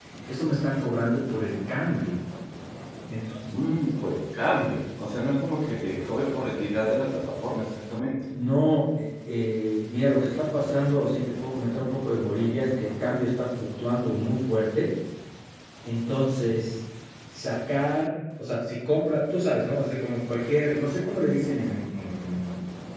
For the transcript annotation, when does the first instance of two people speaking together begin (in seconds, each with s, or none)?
none